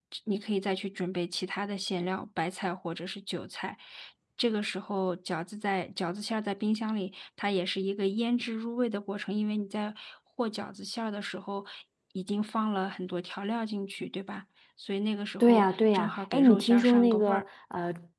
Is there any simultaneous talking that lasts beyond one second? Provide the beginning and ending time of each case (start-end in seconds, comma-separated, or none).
15.4-17.4